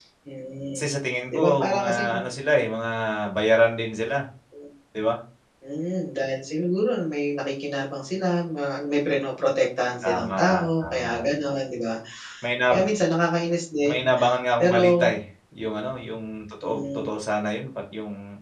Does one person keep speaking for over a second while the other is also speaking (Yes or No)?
Yes